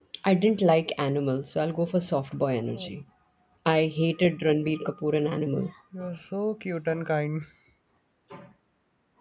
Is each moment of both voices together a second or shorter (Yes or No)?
Yes